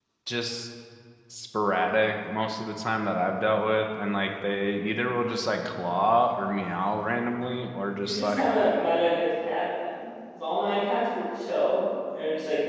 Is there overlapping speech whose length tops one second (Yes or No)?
No